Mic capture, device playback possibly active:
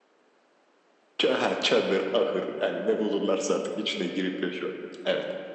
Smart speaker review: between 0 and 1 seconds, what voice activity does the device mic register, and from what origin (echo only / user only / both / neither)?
neither